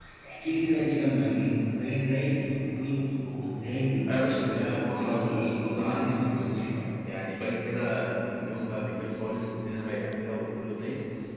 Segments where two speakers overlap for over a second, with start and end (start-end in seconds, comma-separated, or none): 4.1-6.7